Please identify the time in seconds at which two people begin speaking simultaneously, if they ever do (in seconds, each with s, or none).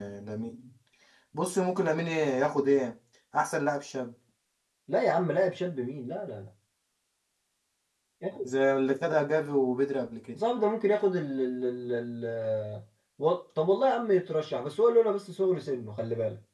none